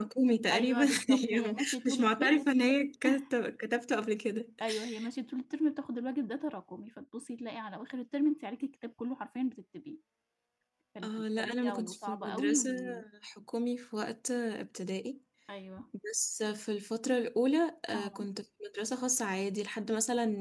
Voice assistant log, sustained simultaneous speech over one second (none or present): present